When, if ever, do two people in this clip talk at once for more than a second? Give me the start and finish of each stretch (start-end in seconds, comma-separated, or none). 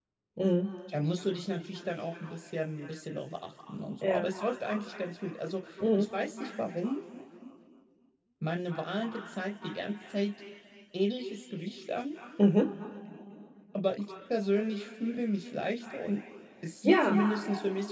none